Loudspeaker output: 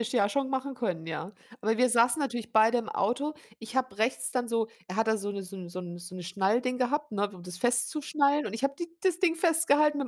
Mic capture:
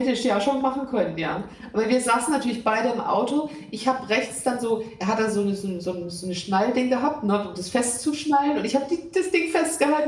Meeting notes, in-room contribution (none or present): none